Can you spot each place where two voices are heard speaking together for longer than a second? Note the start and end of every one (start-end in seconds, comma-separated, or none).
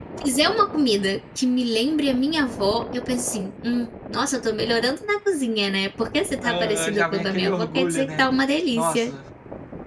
6.4-8.2